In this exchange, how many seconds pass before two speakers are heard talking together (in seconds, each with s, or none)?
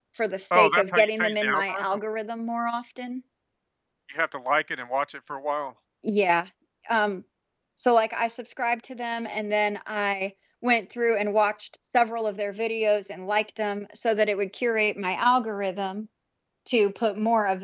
0.5 s